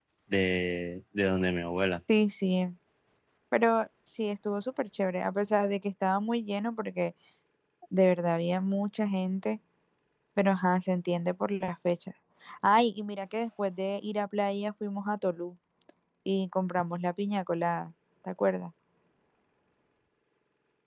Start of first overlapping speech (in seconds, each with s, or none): none